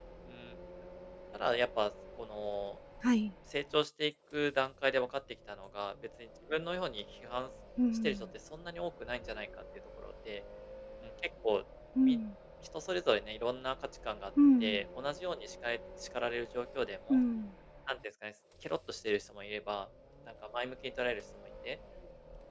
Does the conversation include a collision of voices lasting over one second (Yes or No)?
No